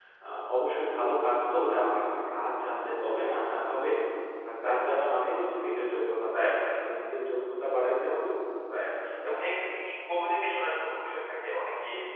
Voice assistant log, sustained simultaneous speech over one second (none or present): none